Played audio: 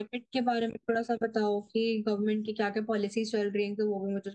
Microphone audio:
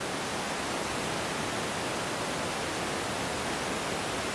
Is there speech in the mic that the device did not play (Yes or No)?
No